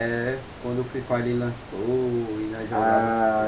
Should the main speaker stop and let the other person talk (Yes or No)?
Yes